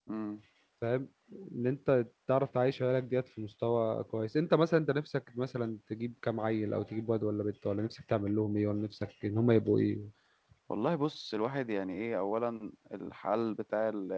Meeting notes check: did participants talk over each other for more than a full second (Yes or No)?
No